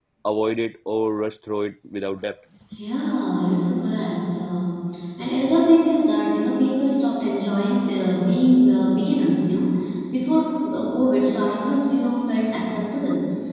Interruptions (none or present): none